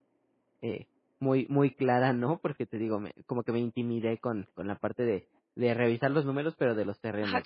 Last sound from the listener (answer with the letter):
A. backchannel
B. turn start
B